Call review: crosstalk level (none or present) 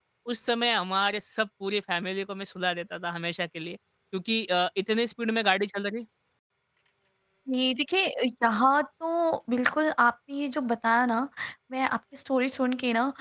none